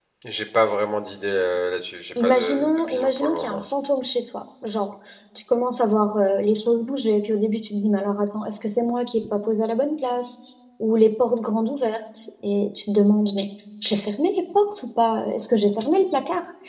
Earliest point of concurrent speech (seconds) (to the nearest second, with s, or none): 2 s